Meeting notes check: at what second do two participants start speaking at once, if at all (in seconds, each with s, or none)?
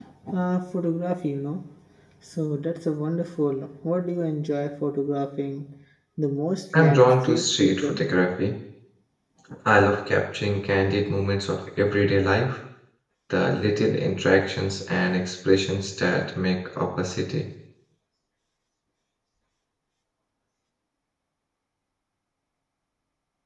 6.8 s